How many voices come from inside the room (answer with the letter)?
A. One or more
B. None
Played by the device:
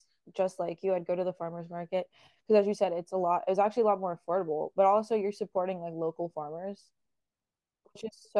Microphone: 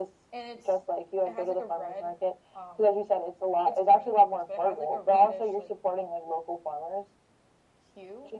A